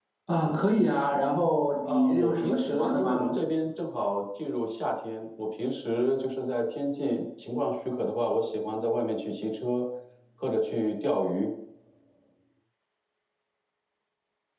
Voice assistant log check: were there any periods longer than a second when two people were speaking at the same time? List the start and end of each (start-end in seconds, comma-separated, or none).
1.8-3.2